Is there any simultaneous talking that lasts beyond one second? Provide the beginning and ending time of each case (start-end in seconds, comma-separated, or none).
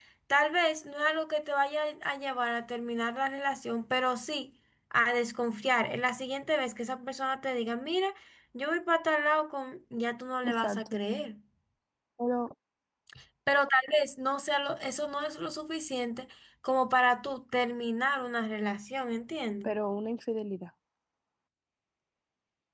none